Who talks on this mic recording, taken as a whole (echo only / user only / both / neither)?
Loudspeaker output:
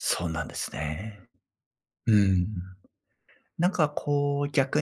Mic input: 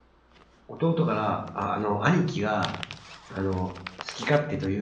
user only